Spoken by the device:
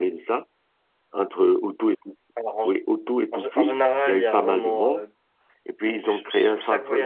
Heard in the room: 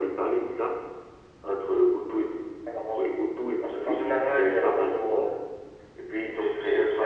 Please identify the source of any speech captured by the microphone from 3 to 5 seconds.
echo only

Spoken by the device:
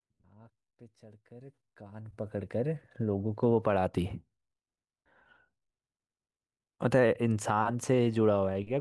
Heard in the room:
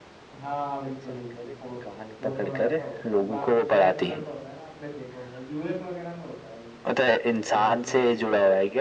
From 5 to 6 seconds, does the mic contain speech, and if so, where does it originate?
user only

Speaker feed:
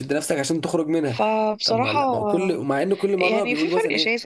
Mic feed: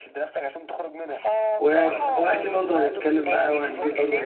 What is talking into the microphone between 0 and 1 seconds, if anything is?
echo only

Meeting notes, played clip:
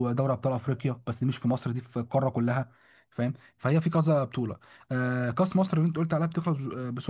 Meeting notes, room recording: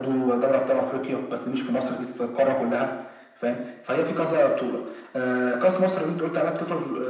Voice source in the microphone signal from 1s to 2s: echo only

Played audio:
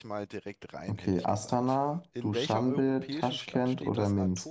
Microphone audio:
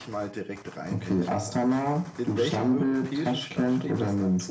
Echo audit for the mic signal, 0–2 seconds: echo only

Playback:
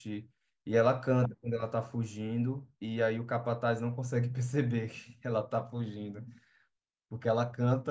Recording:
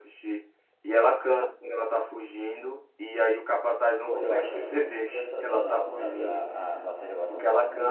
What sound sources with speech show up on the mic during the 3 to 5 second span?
both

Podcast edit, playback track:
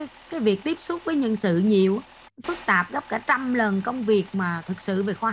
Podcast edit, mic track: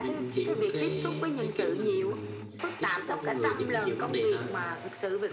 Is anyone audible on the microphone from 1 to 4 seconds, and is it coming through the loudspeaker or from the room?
both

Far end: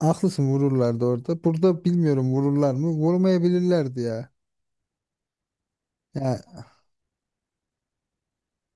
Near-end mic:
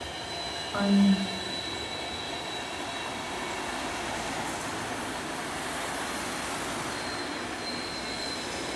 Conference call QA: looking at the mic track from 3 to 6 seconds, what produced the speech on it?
neither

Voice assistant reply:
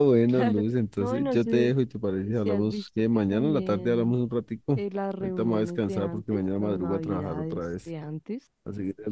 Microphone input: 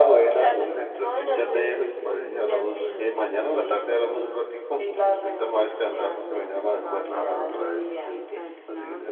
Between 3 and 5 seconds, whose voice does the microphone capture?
both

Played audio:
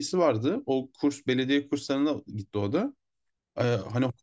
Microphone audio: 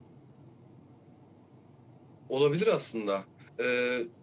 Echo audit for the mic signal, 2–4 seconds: user only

